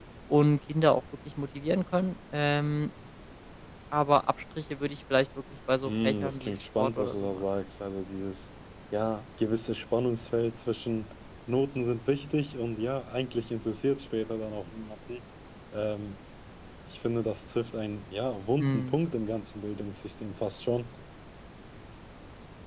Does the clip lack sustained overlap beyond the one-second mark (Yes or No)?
No